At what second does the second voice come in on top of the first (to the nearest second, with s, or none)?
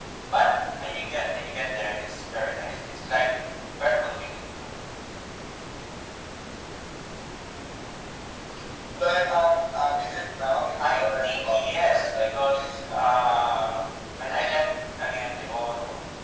11 s